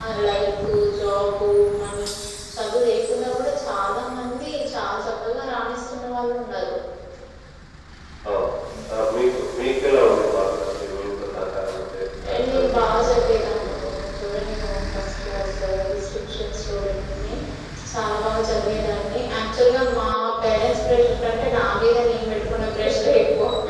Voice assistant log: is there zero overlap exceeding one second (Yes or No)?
No